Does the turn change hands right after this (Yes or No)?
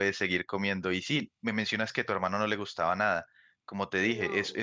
No